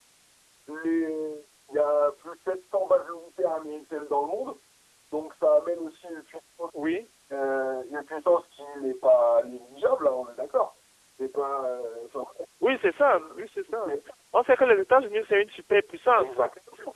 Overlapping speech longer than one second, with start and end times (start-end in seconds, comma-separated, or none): none